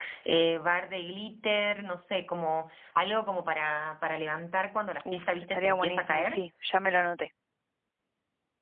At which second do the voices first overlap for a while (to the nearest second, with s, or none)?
5 s